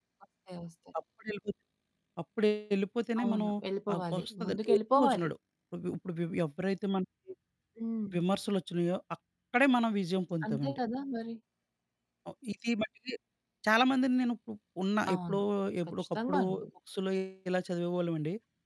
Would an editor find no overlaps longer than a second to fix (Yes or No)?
No